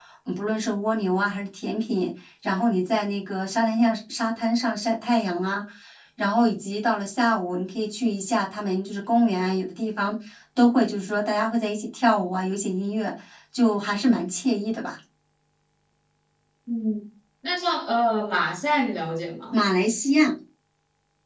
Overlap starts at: none

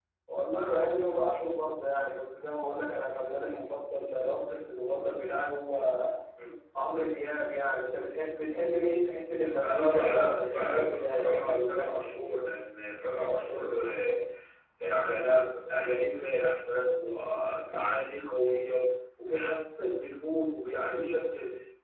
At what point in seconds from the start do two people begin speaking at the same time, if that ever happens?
9.6 s

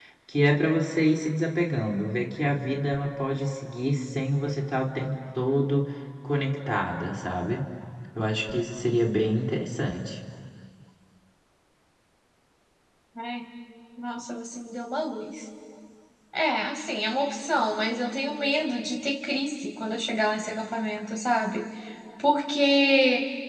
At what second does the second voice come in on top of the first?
none

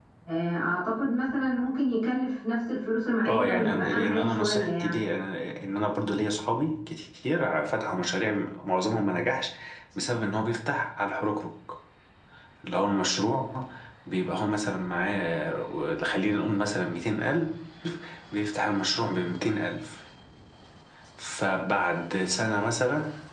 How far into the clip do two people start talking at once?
3.2 s

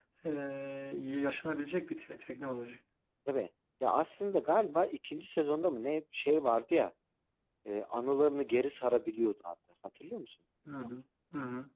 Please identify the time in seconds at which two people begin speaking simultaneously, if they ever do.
none

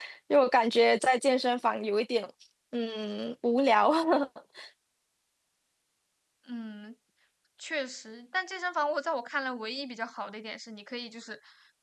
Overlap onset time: none

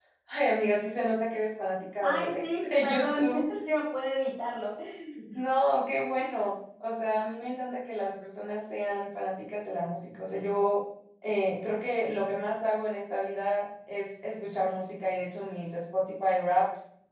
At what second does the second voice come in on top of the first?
2.0 s

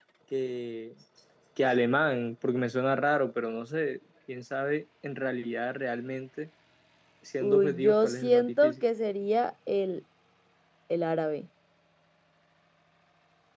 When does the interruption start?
7.4 s

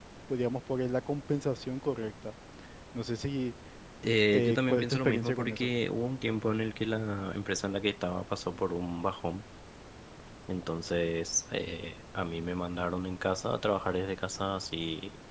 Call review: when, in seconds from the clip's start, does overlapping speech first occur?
4.3 s

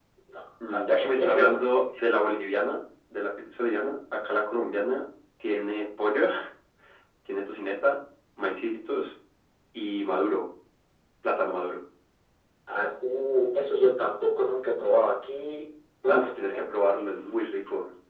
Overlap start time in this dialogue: 0.7 s

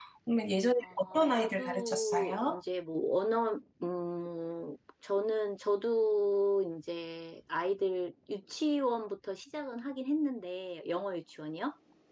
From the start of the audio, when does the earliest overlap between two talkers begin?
0.8 s

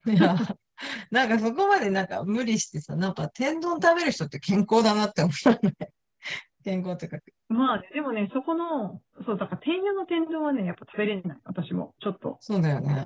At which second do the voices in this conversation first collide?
none

